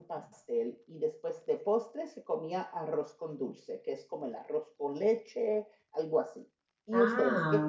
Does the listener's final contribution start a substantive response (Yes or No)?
Yes